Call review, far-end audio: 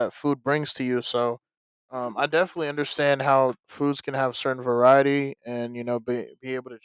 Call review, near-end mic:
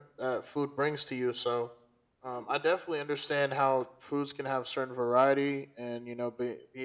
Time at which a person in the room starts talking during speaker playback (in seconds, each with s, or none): none